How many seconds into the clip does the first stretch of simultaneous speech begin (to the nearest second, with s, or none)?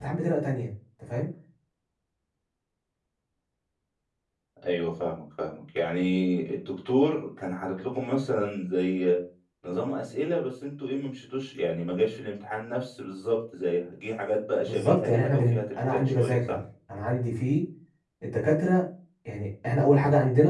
15 s